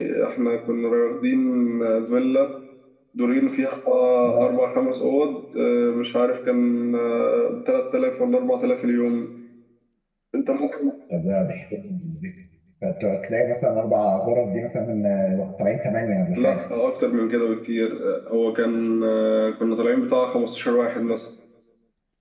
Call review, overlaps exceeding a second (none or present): none